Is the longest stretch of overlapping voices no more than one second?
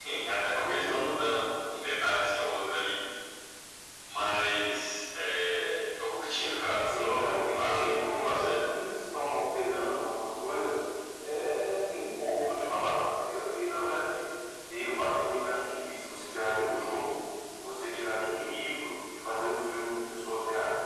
No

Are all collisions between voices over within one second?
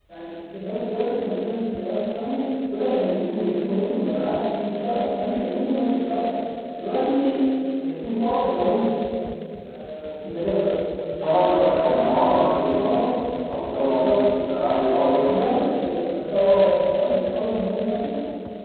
No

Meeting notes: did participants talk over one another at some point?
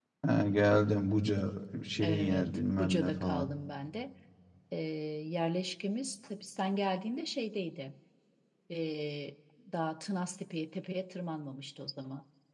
Yes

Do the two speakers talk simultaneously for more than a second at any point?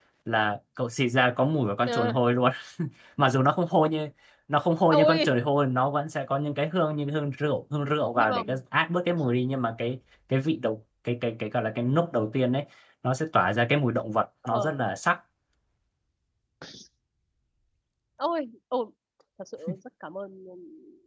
No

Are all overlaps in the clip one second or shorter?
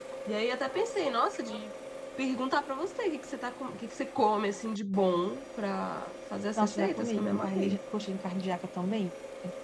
No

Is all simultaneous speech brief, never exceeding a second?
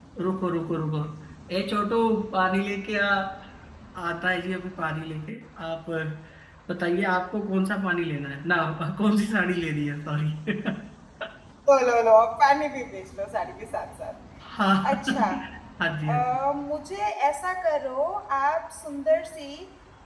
Yes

